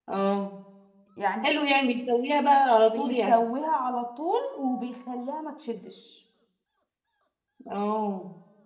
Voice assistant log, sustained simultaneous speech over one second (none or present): none